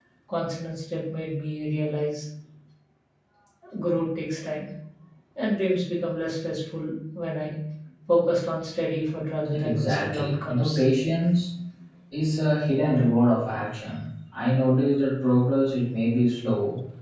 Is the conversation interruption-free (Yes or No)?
No